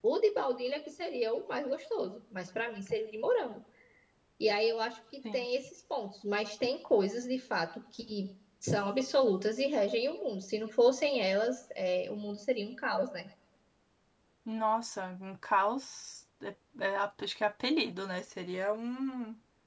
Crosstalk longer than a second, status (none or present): none